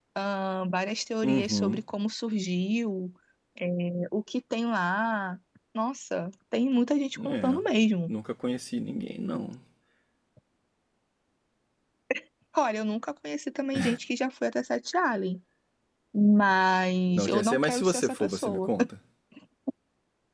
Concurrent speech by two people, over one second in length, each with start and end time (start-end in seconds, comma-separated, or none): 17.1-18.7